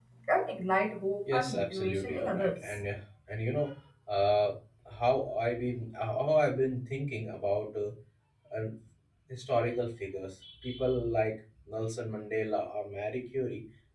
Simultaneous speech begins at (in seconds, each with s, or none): 1.3 s